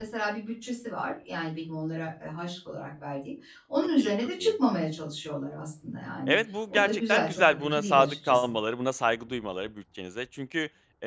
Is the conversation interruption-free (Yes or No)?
No